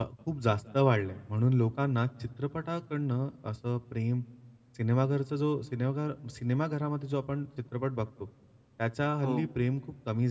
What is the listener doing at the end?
listening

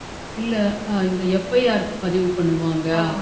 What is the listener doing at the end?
listening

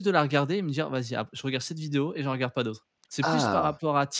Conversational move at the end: listening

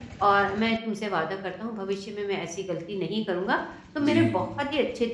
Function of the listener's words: listening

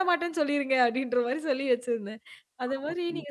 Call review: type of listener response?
listening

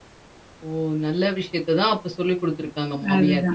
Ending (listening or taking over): taking over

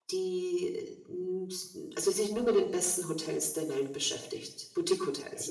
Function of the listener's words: taking over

